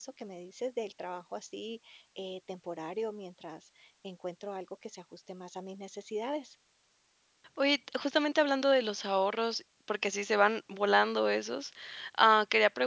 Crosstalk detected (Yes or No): No